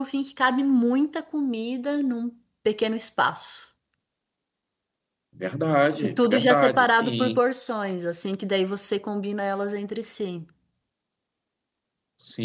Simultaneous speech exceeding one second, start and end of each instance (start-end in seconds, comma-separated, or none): 6.0-7.4